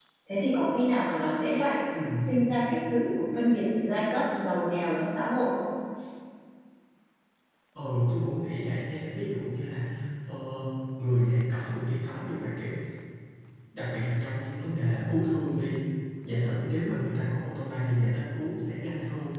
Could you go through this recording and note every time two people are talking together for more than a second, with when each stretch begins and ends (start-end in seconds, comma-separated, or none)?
none